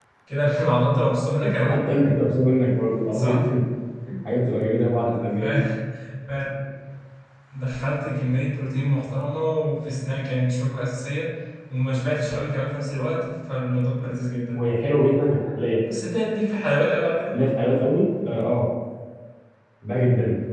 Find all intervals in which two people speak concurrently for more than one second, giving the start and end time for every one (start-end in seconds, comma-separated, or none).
none